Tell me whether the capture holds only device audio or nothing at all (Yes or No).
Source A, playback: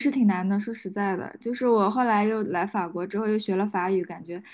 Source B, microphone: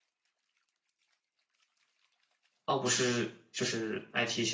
No